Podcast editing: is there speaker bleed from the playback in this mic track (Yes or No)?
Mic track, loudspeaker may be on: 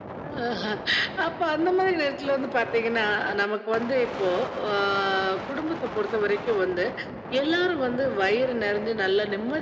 Yes